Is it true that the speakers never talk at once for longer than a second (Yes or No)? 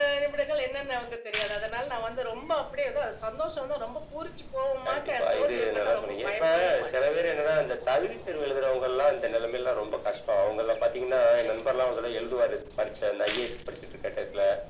No